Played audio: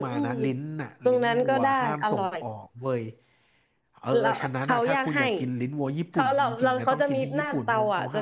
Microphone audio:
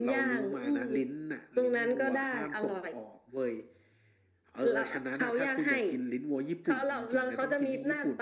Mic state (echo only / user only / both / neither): echo only